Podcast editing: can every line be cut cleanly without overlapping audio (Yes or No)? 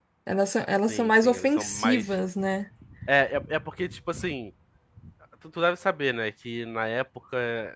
No